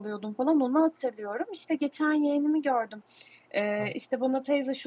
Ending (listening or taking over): listening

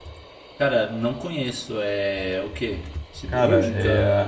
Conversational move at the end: taking over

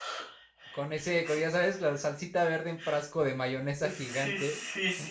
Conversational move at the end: taking over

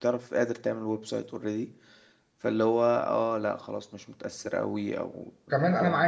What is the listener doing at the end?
taking over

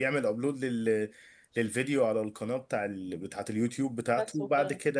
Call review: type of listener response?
listening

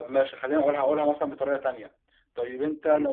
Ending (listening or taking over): listening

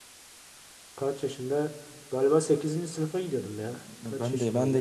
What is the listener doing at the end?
taking over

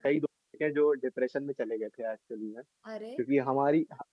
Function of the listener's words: listening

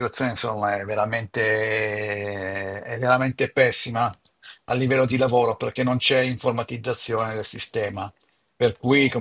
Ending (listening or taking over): listening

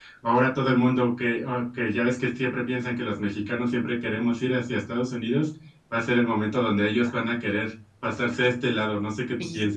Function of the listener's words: taking over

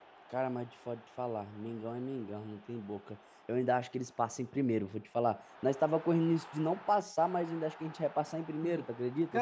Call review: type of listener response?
taking over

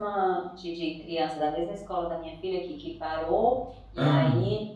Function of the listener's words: listening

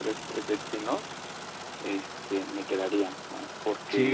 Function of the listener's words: taking over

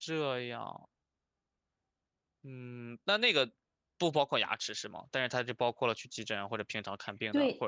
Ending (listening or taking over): taking over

